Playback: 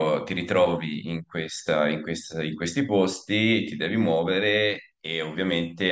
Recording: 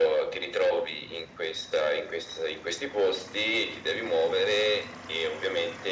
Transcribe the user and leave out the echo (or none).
none